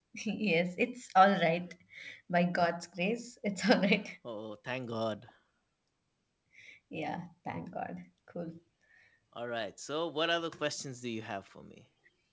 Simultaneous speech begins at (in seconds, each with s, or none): none